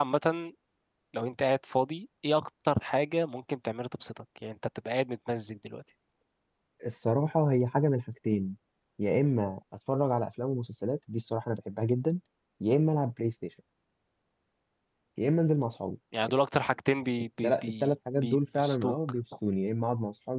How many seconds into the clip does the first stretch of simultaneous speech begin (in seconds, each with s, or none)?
17.4 s